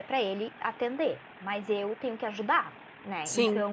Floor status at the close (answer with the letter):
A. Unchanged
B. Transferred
A